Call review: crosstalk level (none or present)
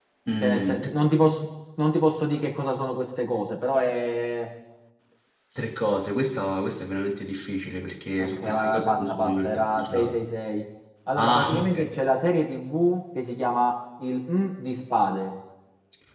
present